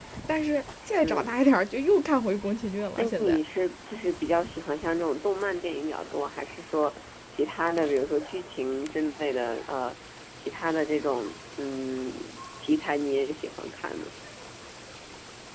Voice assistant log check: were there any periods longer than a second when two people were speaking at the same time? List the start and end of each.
none

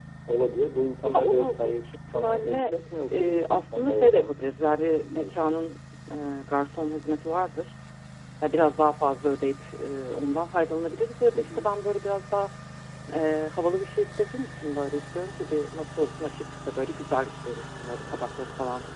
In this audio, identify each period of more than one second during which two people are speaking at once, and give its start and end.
1.0-2.7, 3.1-4.3

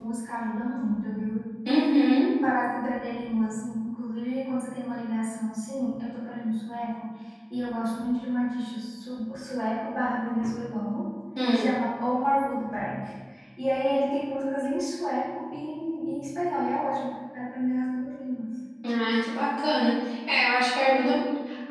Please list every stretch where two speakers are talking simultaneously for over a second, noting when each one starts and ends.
none

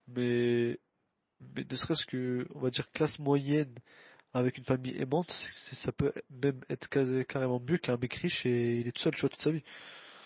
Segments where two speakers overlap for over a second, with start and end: none

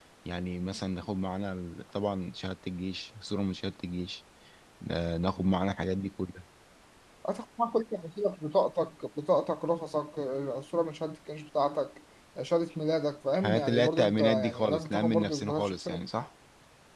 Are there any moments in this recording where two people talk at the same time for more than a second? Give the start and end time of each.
13.4-16.0

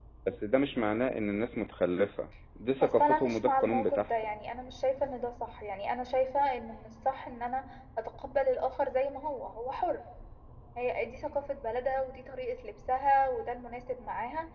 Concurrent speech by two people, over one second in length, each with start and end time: 2.8-4.1

